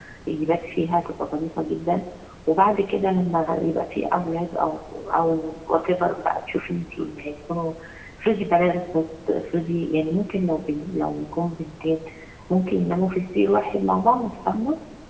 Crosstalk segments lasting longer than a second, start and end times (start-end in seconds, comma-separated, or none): none